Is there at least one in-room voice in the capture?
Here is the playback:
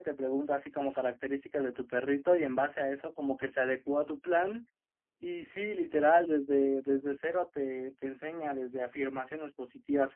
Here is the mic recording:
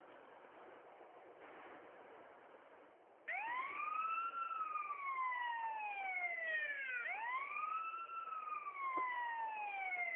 No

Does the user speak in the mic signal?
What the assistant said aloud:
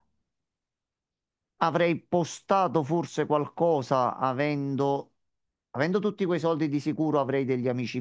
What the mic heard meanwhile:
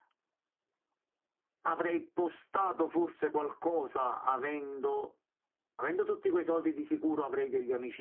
No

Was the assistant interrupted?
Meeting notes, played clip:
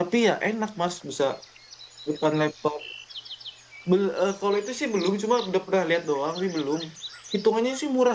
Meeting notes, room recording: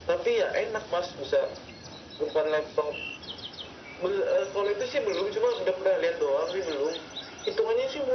No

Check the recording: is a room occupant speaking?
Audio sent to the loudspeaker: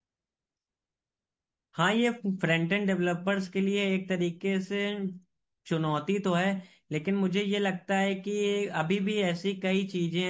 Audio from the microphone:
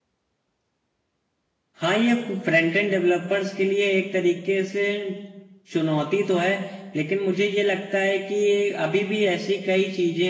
No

